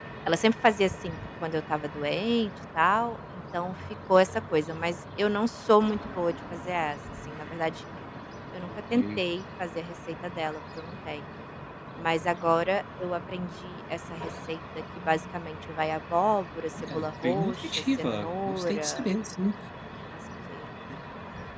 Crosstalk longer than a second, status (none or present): present